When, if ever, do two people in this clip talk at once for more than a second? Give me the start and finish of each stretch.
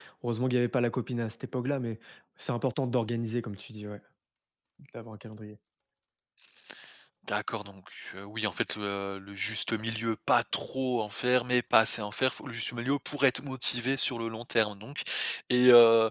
none

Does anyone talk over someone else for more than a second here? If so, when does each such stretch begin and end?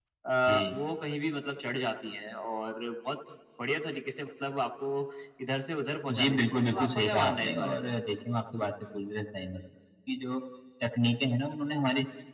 6.2-7.8

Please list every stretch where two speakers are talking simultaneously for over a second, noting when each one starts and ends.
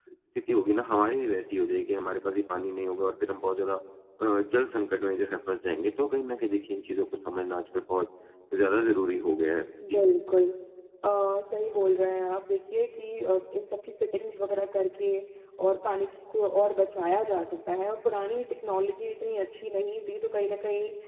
none

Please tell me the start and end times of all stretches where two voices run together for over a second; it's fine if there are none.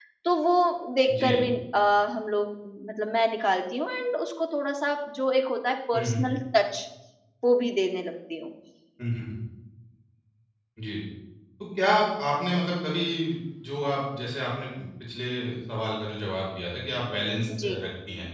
none

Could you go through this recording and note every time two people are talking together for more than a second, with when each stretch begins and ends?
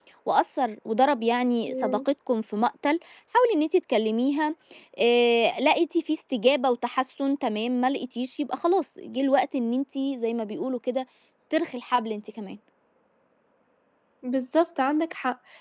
none

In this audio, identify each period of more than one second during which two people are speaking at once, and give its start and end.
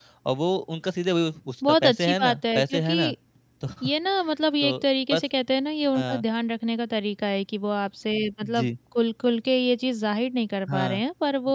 1.7-2.9

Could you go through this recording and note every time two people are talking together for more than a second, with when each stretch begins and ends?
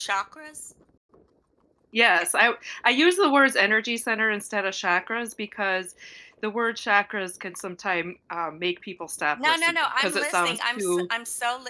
9.4-11.0

